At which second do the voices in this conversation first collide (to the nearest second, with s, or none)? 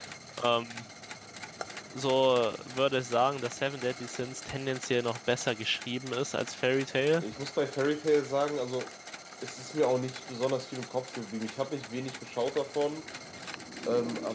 none